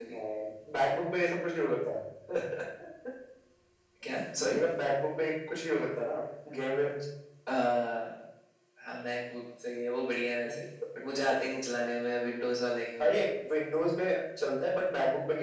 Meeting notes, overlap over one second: none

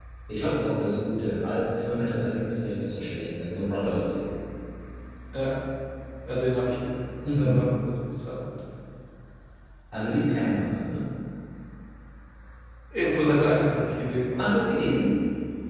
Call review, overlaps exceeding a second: none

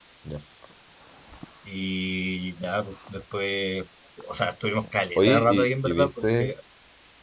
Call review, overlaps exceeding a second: present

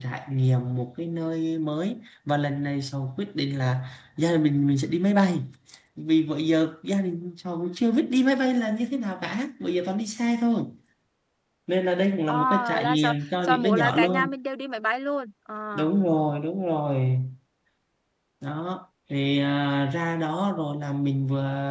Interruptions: present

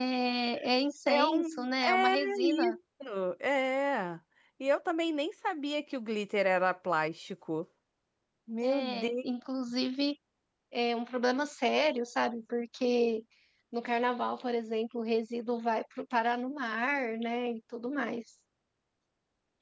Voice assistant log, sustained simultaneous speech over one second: present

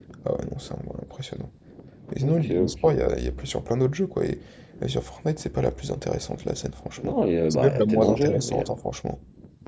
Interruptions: present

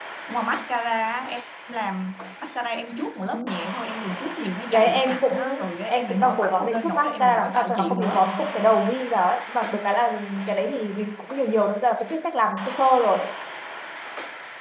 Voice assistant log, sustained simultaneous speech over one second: present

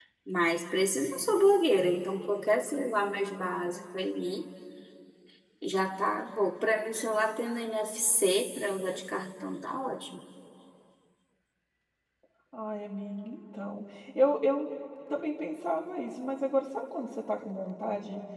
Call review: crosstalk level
none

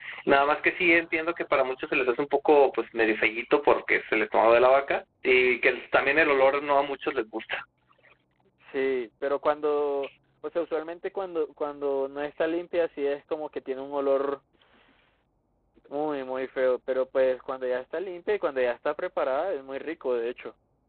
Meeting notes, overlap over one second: none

